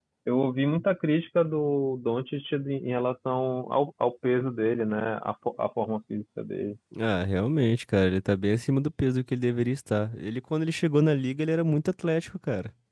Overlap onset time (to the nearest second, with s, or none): none